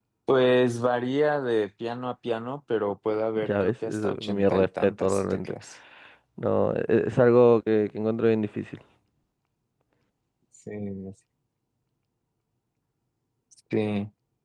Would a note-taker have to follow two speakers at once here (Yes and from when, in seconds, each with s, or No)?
Yes, from 3.4 s